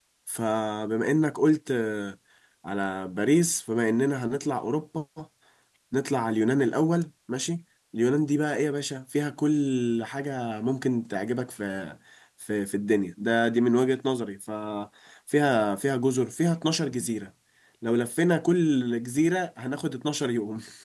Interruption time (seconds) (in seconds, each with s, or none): none